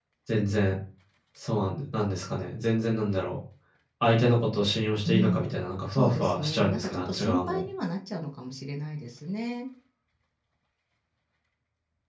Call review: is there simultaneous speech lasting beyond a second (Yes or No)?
Yes